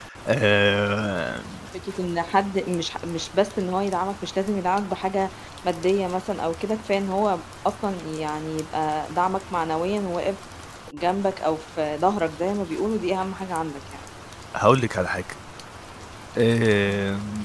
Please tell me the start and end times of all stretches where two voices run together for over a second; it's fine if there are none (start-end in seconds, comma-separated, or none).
none